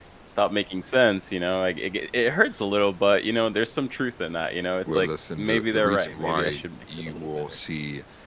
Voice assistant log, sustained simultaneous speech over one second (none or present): present